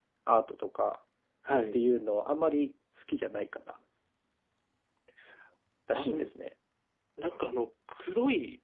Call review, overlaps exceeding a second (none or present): none